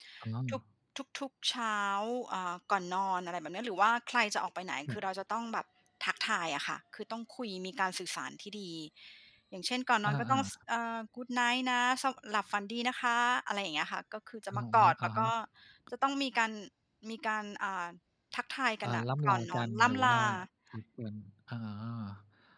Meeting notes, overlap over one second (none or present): present